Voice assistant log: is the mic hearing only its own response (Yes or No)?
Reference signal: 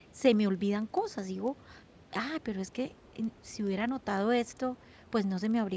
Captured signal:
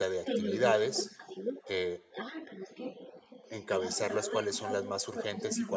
No